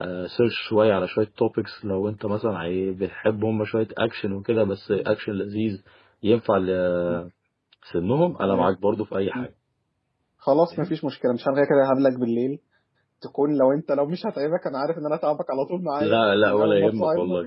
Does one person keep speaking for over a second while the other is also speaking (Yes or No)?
Yes